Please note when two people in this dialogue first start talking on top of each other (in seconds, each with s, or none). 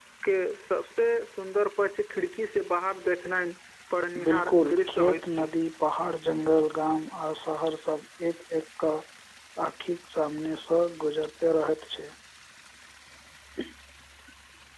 4.2 s